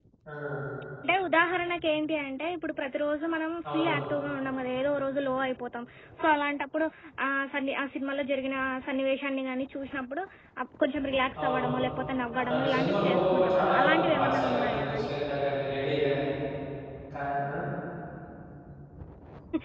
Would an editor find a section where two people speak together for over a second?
Yes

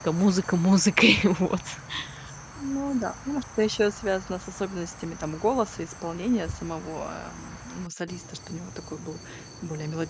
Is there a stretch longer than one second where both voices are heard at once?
No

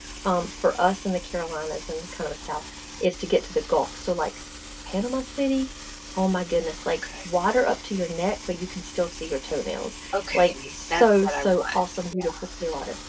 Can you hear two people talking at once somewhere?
Yes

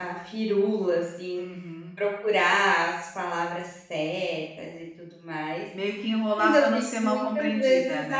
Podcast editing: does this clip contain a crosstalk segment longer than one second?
Yes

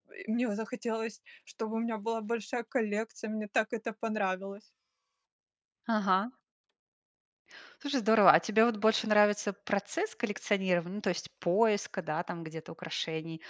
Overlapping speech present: No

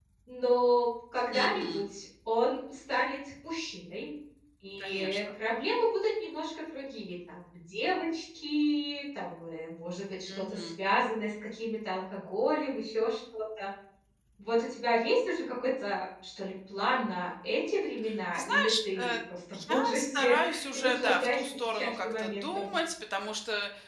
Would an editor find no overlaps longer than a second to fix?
No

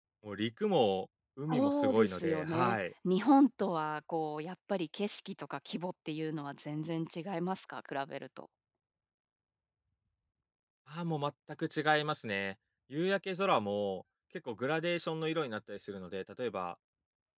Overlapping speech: Yes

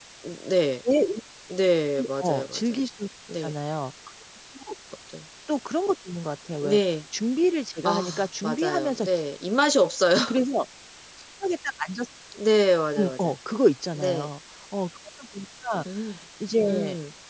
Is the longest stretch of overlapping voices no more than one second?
No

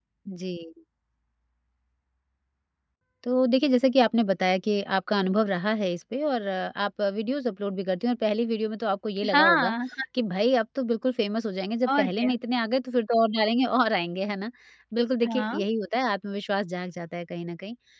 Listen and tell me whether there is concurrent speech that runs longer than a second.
No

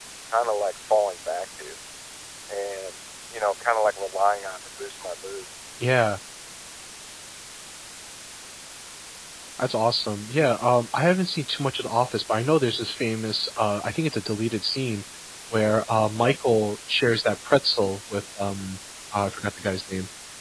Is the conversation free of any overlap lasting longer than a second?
Yes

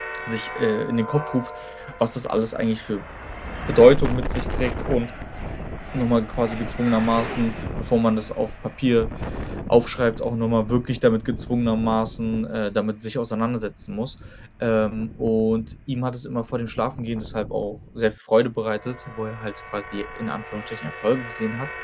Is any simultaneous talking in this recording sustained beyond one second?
No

